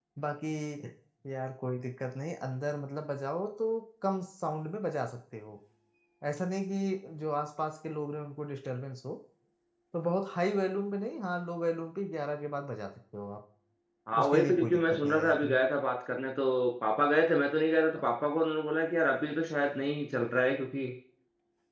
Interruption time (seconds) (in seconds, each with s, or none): 14.2 s